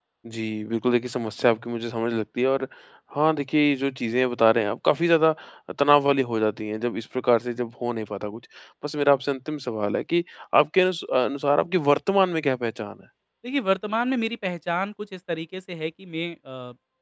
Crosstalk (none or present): none